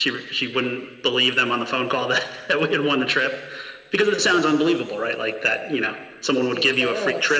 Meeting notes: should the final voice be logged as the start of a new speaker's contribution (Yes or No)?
No